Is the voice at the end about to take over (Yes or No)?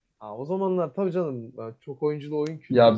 Yes